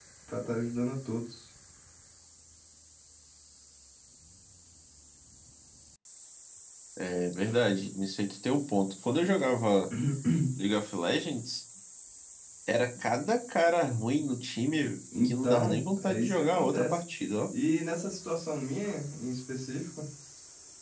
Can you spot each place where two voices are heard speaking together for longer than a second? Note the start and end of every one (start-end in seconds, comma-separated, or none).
15.2-17.0